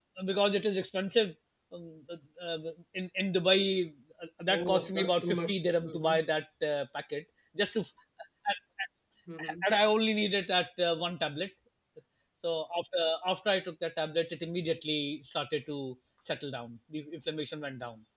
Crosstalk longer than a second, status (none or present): present